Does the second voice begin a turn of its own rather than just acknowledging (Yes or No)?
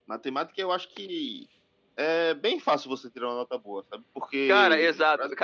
Yes